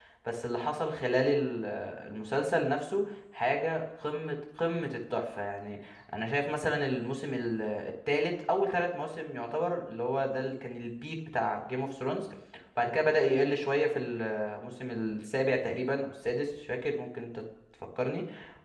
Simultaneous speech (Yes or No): No